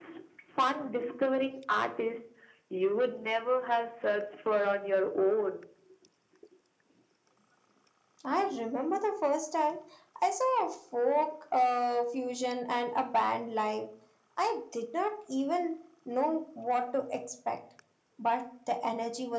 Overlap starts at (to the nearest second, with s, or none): none